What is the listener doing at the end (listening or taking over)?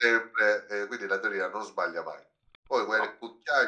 listening